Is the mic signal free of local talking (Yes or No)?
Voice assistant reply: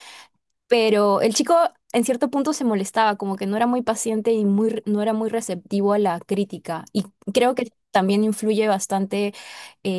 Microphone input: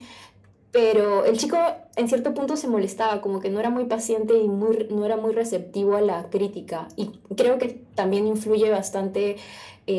Yes